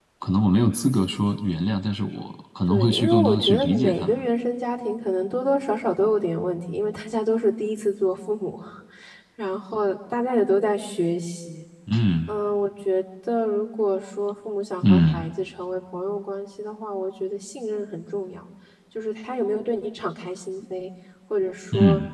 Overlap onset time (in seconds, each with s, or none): 2.7 s